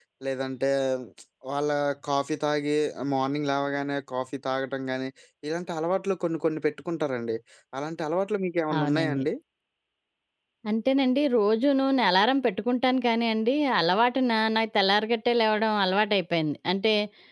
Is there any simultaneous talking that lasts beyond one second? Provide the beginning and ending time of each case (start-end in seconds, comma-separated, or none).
none